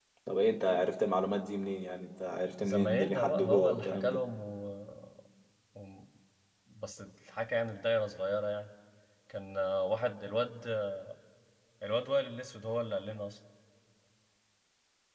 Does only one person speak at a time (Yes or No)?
No